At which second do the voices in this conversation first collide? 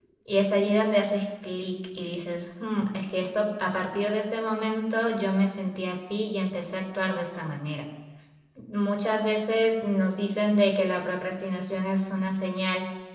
none

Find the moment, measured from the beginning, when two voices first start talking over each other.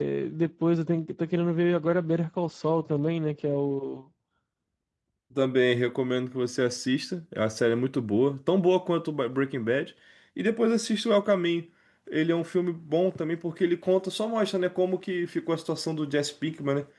none

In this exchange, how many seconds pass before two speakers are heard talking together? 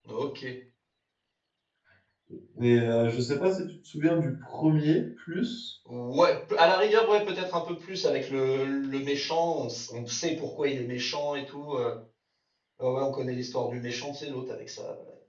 none

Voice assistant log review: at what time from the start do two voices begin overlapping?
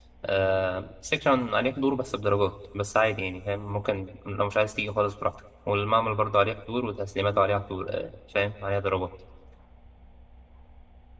none

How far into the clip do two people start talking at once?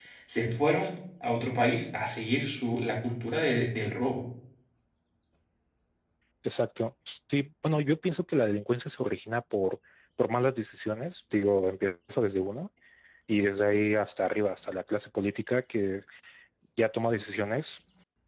none

